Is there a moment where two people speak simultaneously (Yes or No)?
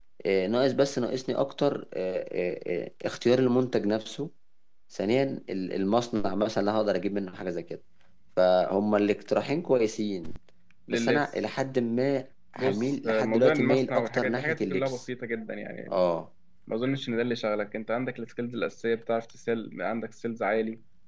Yes